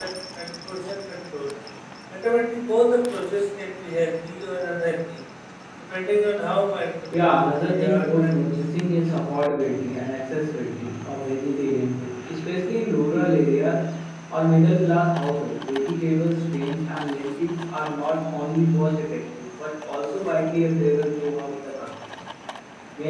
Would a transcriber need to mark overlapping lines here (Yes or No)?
Yes